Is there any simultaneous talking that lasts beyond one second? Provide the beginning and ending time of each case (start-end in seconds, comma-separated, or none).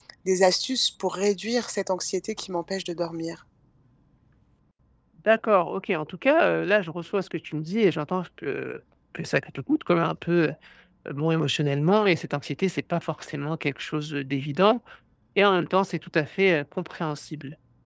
none